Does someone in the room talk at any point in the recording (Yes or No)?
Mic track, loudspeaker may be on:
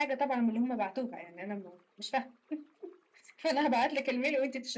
No